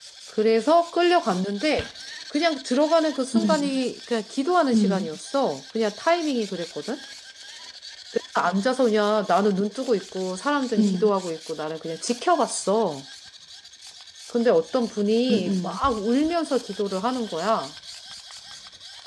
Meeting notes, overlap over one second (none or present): none